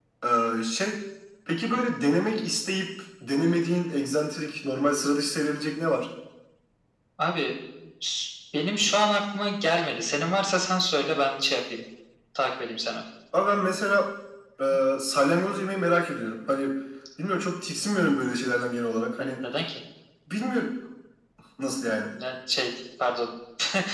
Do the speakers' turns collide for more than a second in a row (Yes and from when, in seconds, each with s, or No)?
No